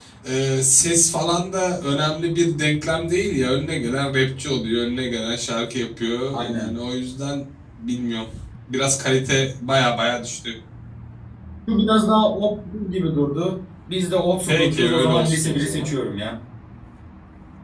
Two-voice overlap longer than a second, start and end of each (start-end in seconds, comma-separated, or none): 14.5-15.9